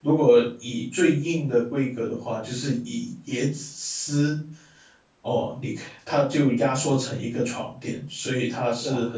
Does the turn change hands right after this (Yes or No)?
No